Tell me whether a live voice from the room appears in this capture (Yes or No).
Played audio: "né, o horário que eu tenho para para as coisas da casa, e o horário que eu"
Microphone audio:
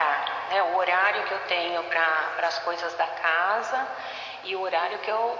No